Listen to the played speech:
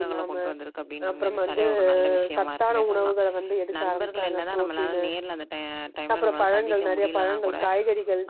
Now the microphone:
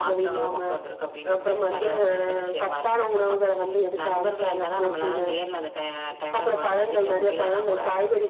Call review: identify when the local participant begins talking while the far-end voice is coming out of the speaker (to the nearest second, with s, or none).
none